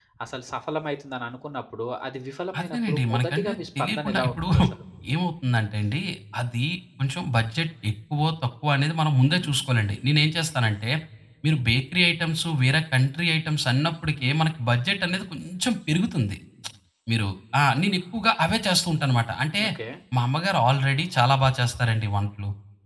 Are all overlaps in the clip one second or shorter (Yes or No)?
No